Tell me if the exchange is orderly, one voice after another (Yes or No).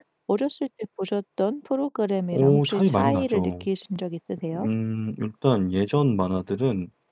No